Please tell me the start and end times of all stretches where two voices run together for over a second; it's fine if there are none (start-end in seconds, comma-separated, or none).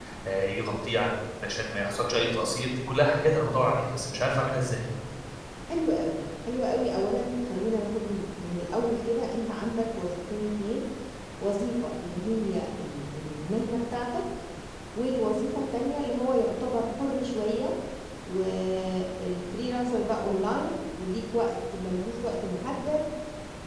none